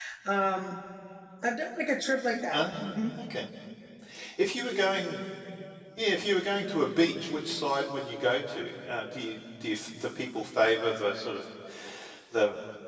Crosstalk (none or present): none